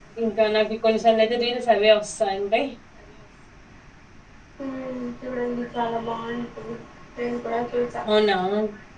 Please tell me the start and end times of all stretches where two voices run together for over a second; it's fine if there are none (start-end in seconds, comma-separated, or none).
none